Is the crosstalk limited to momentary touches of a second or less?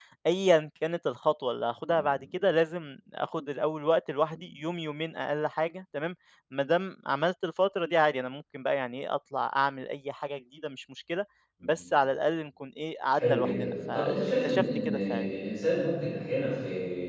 No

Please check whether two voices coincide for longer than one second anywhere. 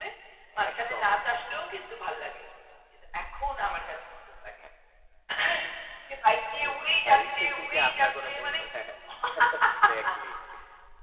Yes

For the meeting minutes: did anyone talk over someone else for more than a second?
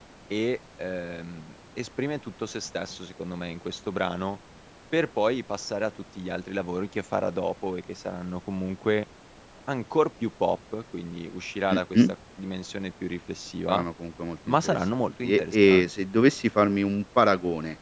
Yes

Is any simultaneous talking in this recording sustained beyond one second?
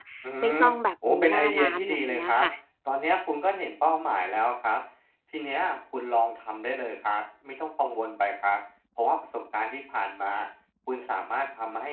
Yes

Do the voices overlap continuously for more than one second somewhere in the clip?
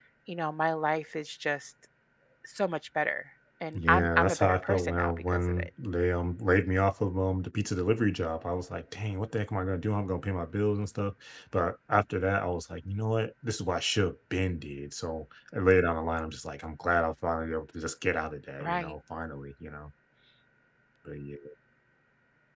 Yes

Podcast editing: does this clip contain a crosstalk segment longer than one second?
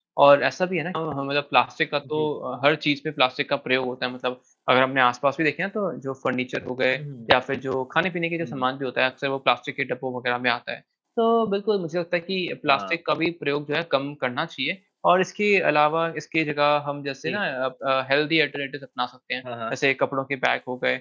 No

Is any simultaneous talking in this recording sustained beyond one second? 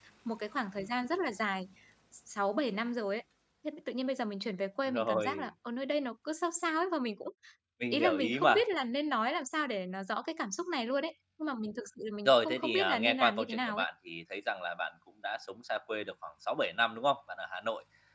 Yes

